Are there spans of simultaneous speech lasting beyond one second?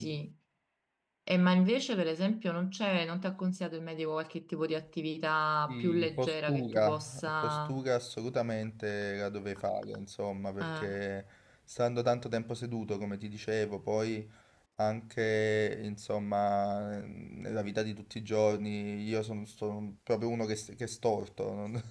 Yes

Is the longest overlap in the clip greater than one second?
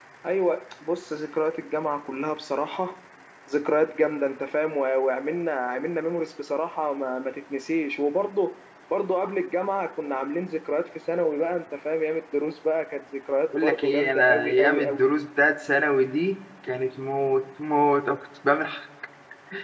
Yes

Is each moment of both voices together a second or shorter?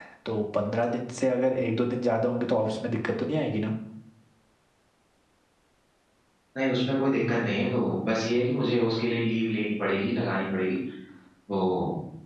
Yes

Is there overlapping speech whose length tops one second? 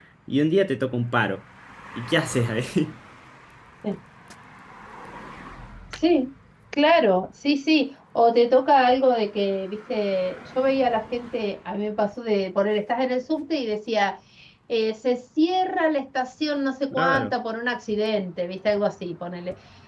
No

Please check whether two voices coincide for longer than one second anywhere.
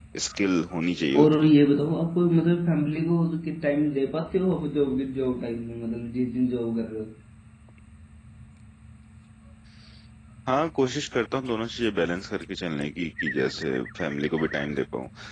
No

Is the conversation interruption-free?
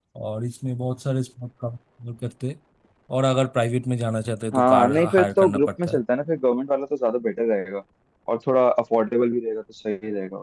No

